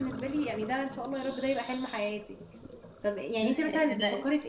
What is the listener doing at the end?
listening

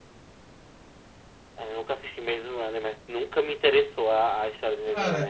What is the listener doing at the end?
taking over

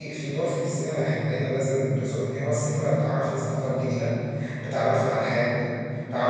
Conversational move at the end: listening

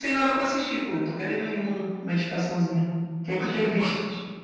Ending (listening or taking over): taking over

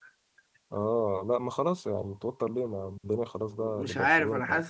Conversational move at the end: taking over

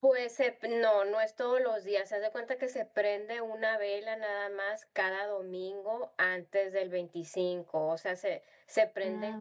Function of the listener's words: listening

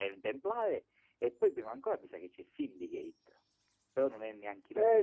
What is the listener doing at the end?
taking over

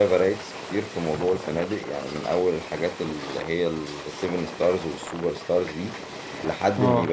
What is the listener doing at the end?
listening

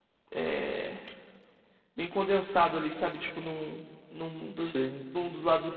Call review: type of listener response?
listening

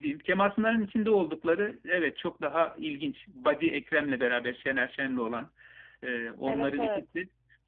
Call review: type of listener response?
listening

